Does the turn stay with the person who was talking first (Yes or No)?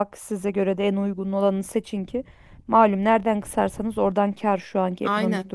No